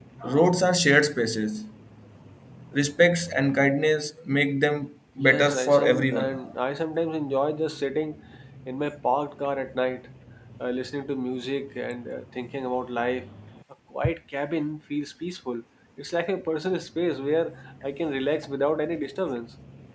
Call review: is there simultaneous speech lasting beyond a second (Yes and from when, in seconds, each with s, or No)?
Yes, from 5.2 s